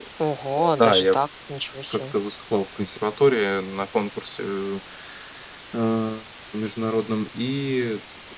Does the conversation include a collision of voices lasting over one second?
No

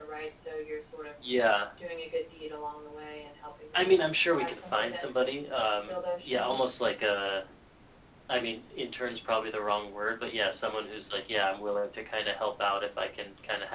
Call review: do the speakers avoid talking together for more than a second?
No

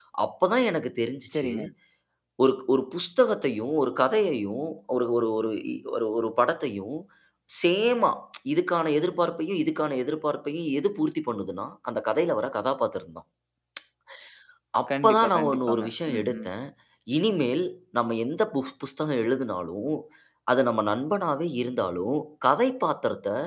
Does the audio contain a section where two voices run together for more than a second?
Yes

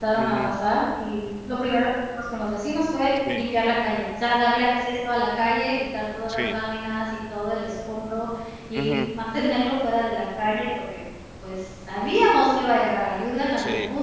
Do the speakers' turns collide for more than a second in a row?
No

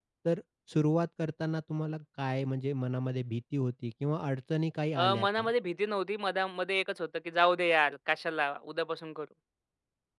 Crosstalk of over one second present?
No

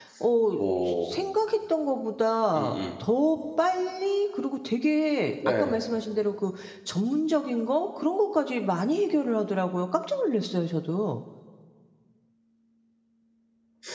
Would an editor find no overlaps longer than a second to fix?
Yes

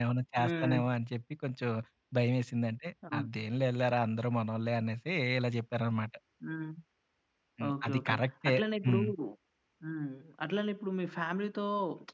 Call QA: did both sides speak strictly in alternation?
No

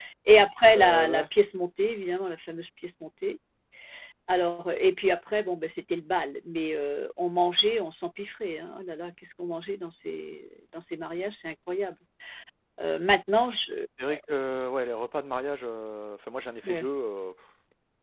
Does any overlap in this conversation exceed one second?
No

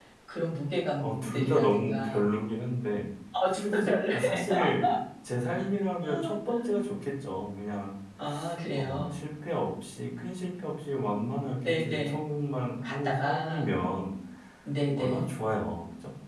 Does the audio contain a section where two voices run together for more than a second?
Yes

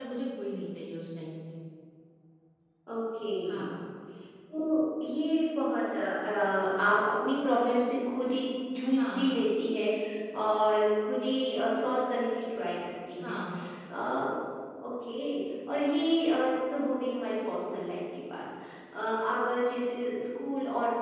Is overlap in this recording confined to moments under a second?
Yes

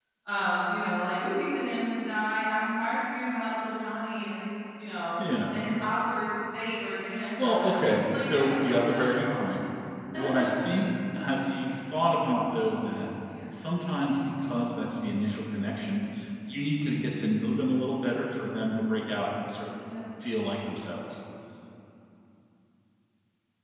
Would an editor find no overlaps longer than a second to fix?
No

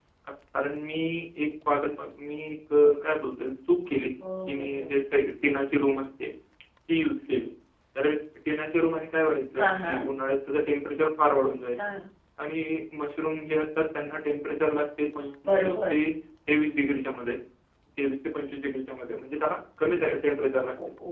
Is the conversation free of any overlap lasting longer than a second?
Yes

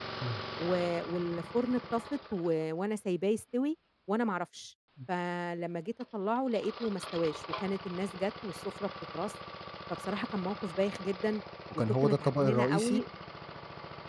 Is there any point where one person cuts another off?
Yes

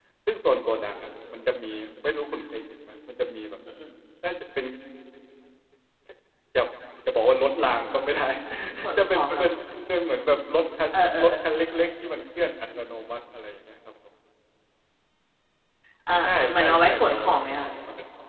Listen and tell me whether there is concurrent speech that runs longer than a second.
Yes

